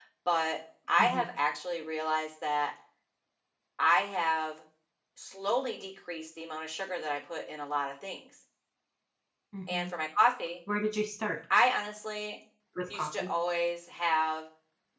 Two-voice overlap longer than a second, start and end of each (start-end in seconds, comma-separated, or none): none